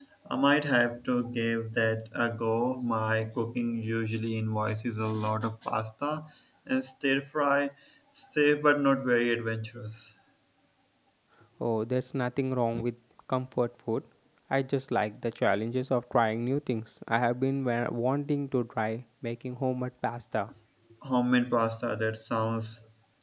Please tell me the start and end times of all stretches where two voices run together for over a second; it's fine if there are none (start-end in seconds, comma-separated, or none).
none